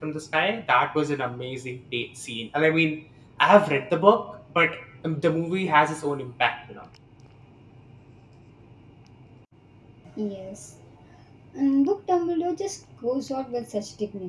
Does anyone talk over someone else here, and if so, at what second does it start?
none

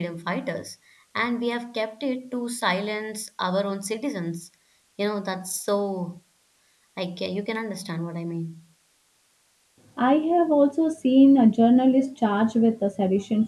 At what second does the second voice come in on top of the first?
none

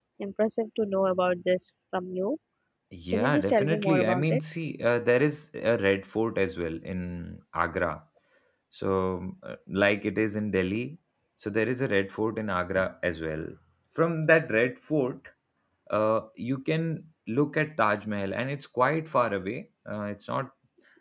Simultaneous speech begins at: 3.1 s

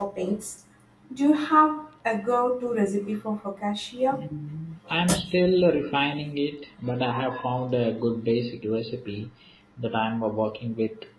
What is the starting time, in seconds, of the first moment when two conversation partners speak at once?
none

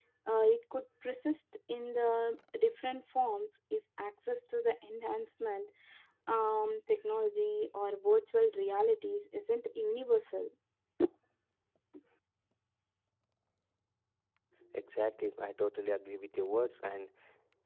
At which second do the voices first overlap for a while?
none

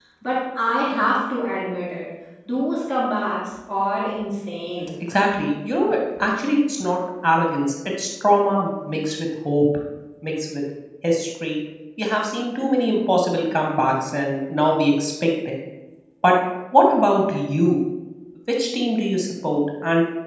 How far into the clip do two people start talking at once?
none

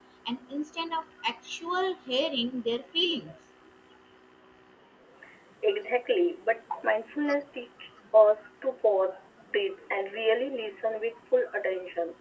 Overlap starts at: none

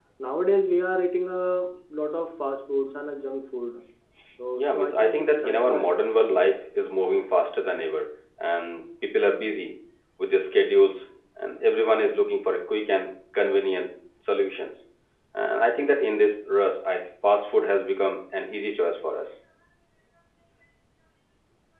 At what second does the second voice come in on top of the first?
4.6 s

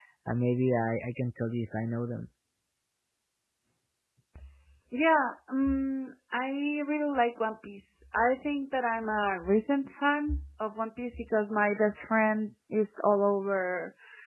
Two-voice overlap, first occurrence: none

